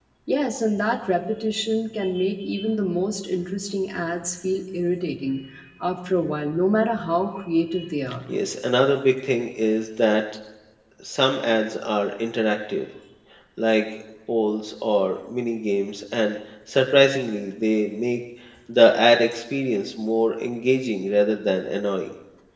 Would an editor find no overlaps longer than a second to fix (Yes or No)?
Yes